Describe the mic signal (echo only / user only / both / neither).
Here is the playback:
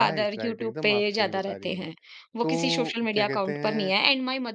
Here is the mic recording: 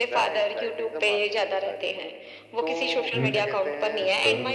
both